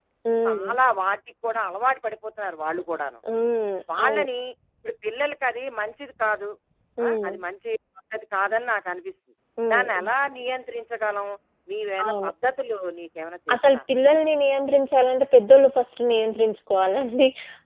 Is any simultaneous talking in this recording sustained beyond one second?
No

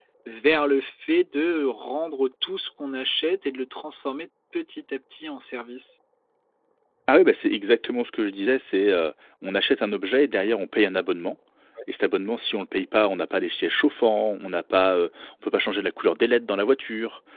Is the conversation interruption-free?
Yes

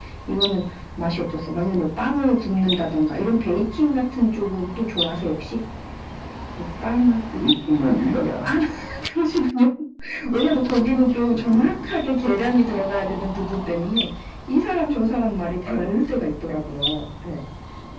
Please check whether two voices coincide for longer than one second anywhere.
No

